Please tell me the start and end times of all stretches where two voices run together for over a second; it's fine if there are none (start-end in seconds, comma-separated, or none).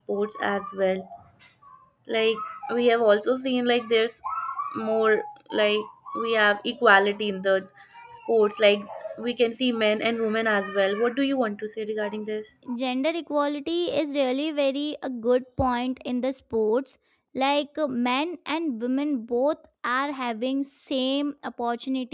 none